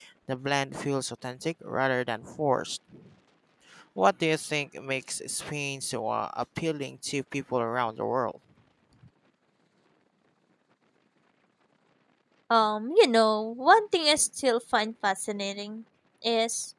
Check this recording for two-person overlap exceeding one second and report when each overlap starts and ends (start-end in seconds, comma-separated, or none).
none